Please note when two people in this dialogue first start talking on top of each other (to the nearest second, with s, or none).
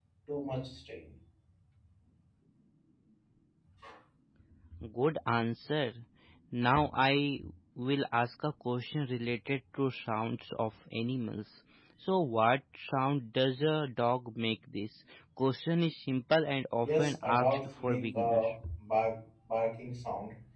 17 s